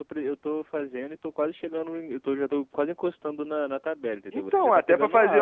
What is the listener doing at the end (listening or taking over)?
taking over